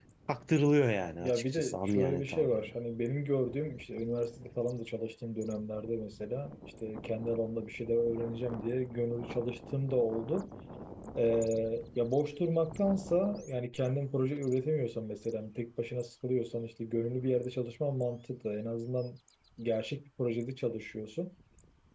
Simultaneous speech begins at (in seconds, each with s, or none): 1.2 s